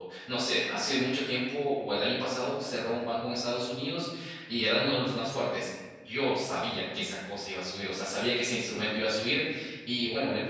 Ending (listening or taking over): listening